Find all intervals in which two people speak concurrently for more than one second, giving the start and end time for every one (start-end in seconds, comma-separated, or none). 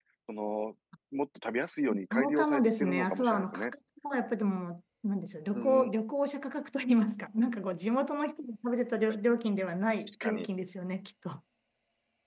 2.1-3.7